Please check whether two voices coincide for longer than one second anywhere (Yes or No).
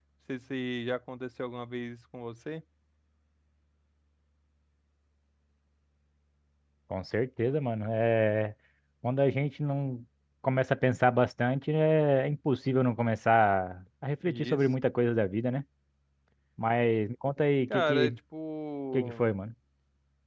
No